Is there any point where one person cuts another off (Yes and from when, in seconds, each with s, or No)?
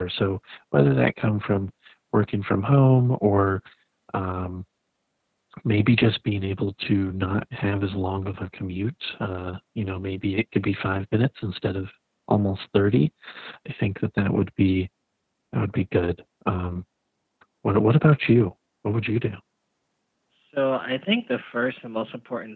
No